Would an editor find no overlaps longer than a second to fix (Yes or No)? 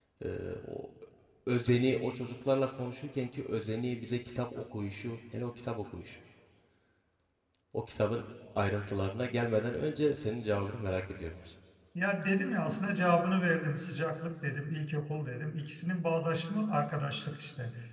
Yes